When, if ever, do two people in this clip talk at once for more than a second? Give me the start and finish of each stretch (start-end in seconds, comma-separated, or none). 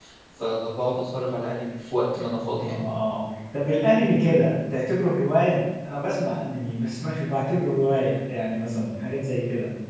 none